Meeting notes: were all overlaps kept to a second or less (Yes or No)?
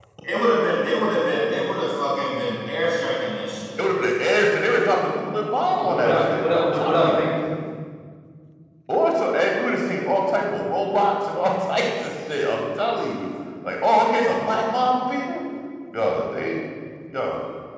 No